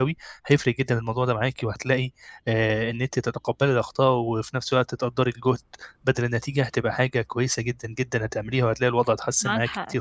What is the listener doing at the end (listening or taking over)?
taking over